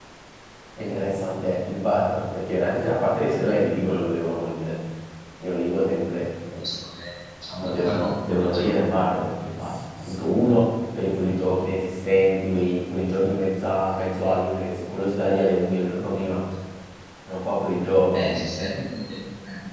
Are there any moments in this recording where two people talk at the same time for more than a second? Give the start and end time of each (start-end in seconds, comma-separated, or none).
7.6-8.9